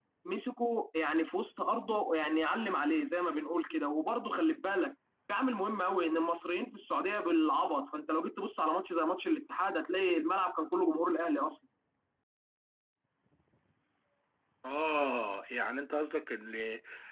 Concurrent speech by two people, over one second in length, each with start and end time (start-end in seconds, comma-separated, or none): none